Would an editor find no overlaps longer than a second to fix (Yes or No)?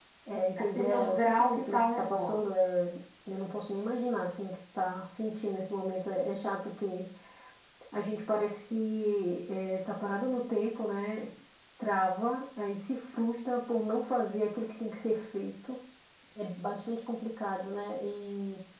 No